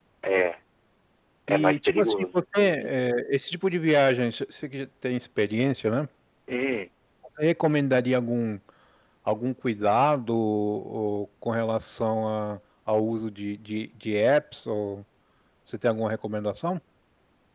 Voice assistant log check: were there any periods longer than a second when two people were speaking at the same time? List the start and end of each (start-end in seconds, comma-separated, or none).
1.5-2.9